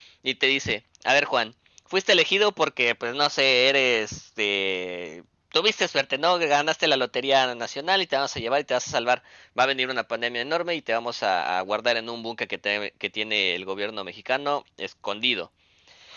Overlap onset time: none

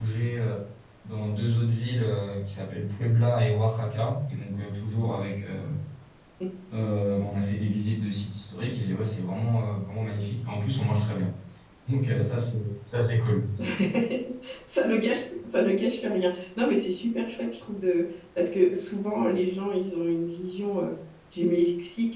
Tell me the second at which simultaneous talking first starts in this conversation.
none

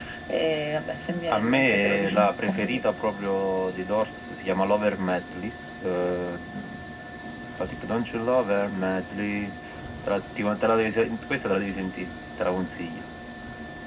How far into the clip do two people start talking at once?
1.3 s

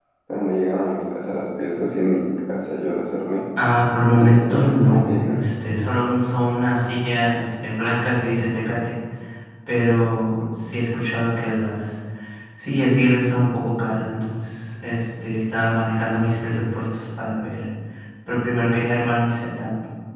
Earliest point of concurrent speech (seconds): 4.1 s

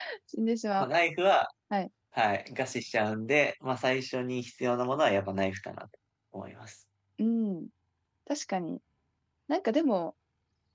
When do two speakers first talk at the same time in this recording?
none

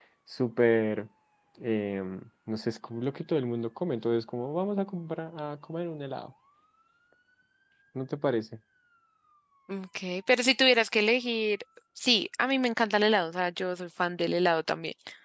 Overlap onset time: none

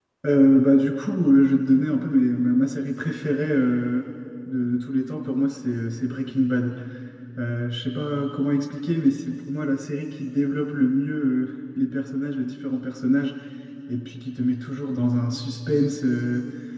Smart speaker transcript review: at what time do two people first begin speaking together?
none

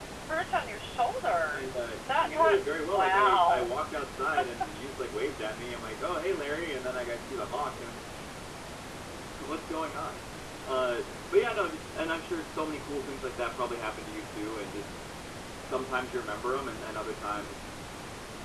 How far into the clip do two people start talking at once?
2.2 s

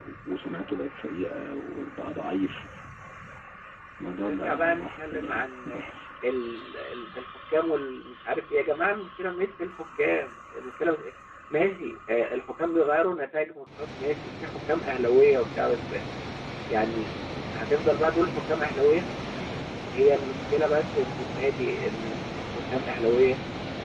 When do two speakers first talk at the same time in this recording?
4.2 s

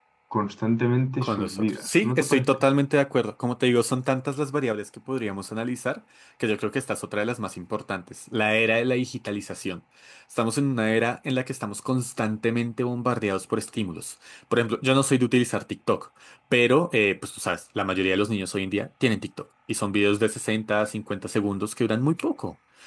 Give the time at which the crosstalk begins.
1.2 s

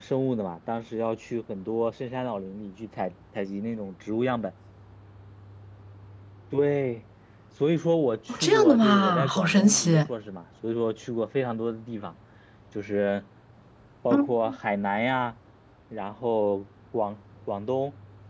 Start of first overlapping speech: 8.3 s

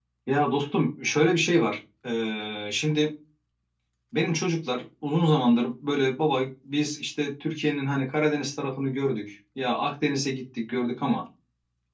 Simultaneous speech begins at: none

